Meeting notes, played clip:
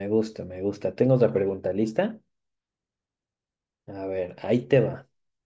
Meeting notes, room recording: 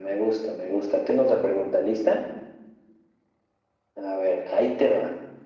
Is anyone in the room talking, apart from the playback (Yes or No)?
No